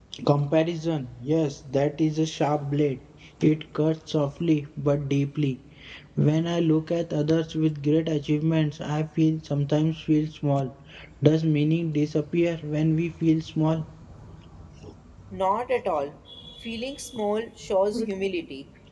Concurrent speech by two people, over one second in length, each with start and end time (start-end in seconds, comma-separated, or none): none